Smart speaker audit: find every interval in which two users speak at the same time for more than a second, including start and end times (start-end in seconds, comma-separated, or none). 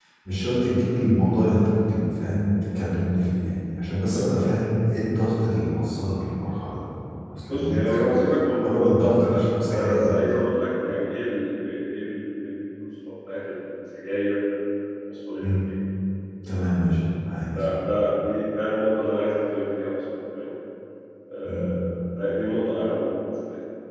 8.6-10.3